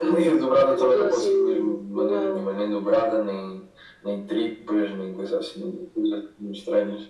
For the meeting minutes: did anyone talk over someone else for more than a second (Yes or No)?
Yes